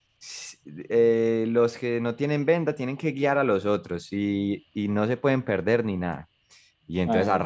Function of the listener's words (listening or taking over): listening